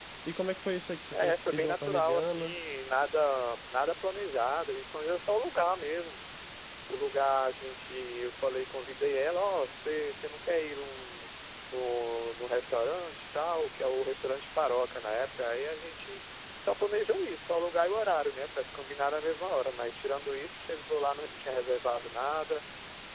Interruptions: present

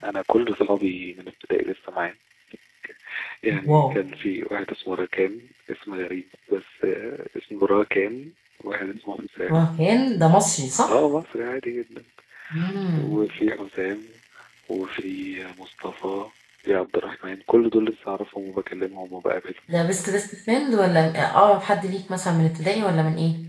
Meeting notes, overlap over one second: none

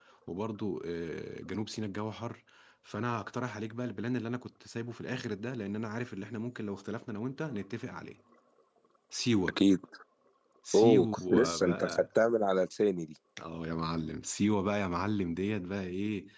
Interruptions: present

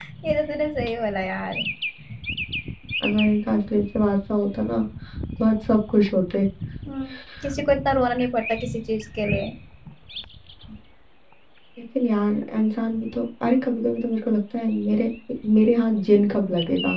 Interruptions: none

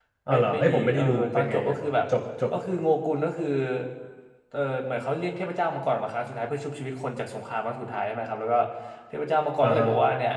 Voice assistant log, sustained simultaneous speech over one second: present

